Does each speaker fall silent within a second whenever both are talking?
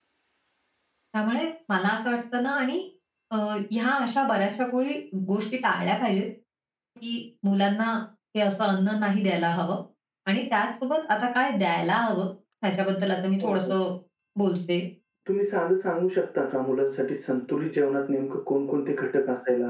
Yes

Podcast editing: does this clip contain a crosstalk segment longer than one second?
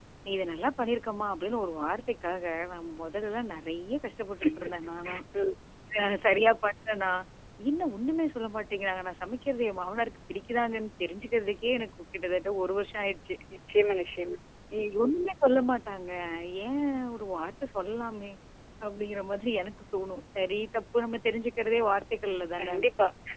No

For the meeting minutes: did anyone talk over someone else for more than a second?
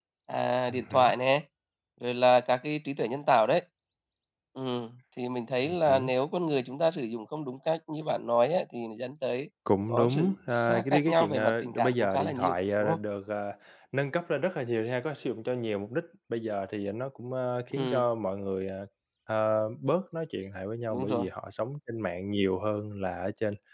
Yes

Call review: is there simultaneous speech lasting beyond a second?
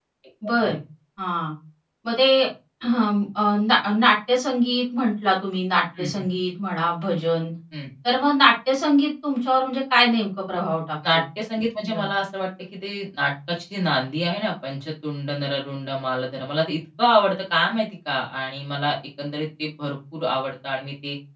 No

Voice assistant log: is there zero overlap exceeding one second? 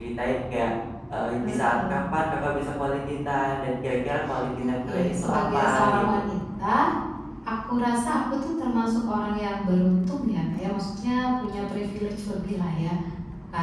No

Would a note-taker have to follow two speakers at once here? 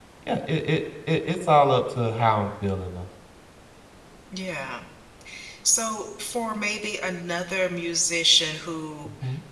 No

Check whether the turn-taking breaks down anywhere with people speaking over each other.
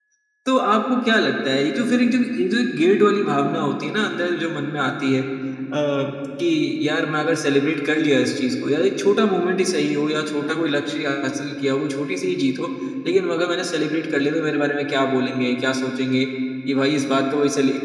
No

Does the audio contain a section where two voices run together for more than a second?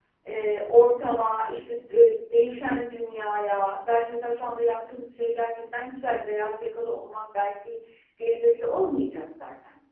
No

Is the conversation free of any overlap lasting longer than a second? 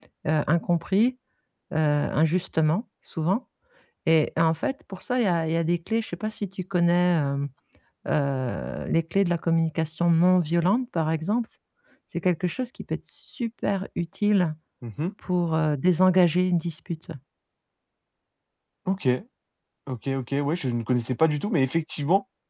Yes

